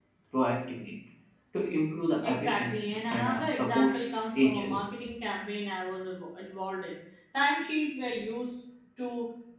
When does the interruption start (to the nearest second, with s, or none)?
2 s